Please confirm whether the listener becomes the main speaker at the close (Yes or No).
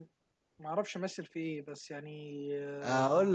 Yes